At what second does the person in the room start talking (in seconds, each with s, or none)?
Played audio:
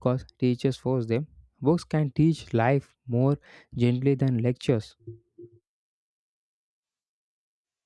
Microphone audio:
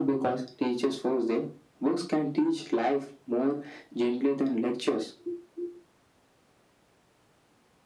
none